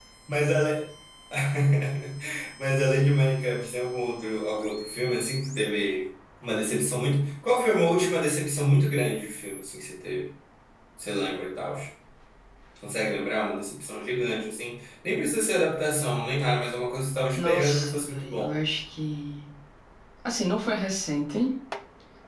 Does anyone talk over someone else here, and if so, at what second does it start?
17.4 s

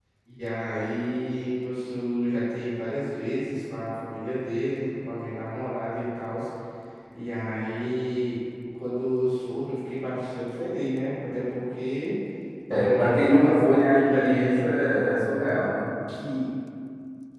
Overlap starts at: 12.7 s

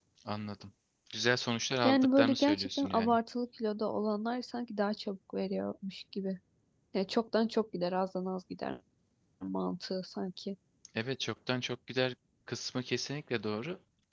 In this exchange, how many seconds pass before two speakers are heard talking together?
1.8 s

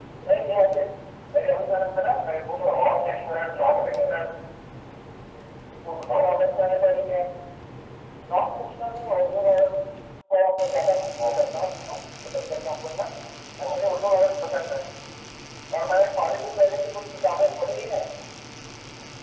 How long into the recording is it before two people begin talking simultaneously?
2.6 s

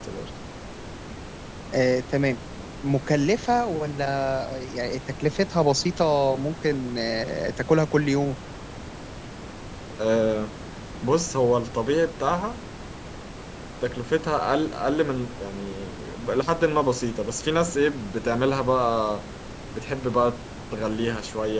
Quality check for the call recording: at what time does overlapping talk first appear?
none

